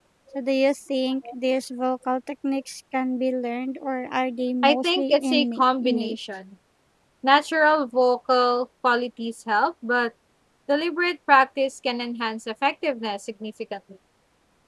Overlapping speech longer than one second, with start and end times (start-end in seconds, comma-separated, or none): 4.6-6.2